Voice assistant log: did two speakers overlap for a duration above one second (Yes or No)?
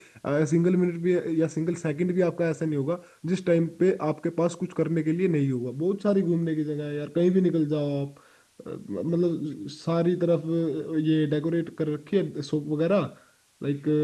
No